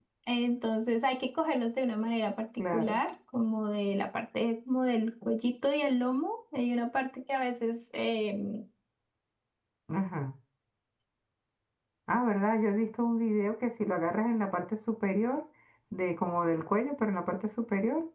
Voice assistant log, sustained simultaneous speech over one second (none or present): none